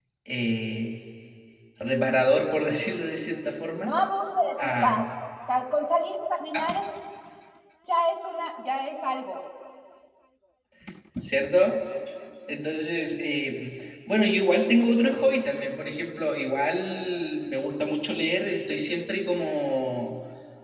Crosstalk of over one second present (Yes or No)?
No